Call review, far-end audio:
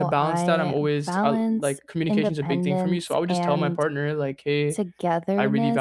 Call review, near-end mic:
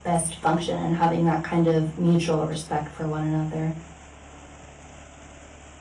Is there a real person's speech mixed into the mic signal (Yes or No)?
Yes